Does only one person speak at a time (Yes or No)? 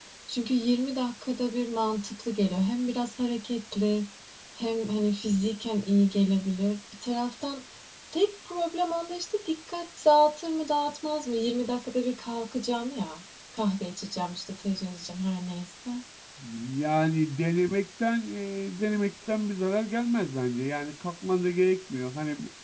Yes